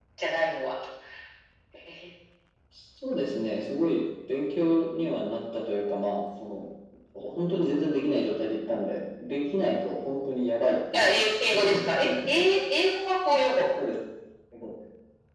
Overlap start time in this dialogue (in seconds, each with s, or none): 10.9 s